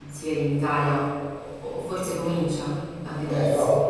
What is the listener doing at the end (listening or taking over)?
taking over